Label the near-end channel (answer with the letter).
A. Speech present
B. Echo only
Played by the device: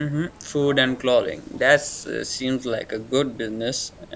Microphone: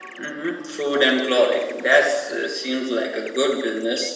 B